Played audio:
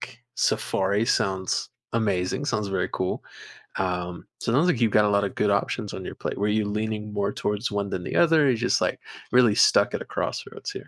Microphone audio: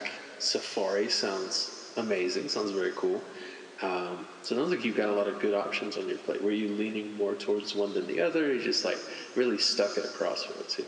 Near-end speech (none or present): none